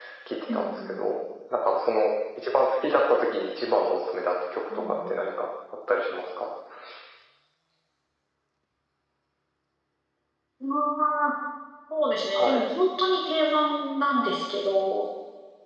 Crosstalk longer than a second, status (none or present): none